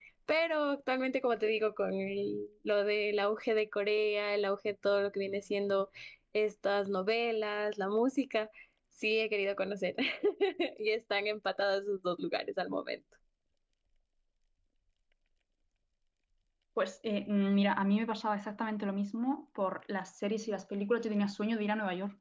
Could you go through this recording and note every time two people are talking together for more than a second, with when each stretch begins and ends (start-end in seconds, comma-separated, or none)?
none